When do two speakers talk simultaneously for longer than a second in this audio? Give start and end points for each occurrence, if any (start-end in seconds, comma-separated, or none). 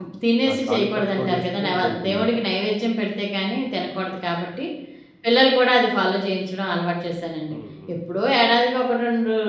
0.5-2.5